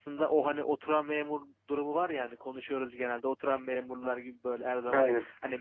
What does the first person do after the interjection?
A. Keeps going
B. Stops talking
A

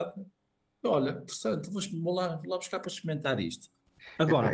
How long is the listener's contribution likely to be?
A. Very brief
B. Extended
B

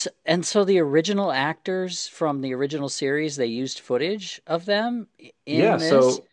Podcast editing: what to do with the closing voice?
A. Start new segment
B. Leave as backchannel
A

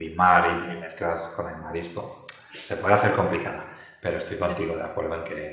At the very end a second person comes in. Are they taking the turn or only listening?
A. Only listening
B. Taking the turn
A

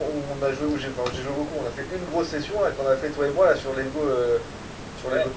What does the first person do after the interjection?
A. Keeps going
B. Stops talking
A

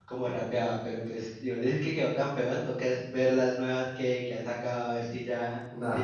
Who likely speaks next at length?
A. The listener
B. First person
A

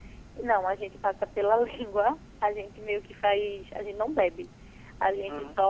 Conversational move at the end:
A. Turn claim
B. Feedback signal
B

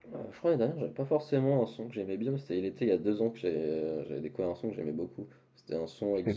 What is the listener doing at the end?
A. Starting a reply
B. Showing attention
B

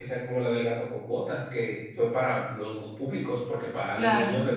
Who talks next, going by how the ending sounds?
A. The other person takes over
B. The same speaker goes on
B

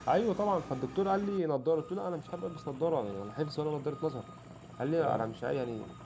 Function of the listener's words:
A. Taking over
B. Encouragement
B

